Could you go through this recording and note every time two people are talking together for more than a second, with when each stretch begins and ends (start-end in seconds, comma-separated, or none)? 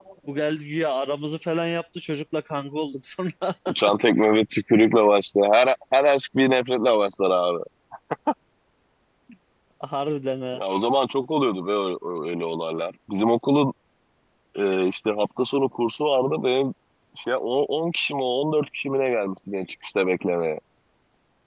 none